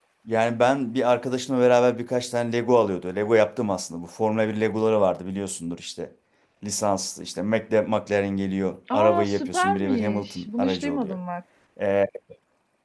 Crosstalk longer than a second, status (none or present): present